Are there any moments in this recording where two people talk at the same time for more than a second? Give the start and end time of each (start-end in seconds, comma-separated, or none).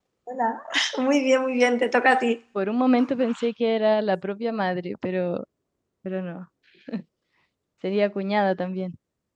none